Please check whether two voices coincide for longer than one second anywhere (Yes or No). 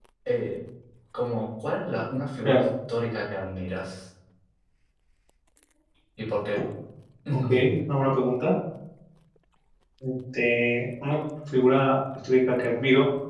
No